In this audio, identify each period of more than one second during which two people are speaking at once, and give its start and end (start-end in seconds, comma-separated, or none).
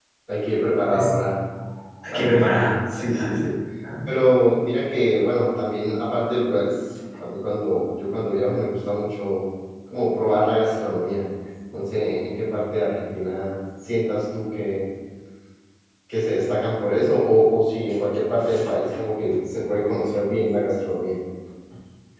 2.1-3.5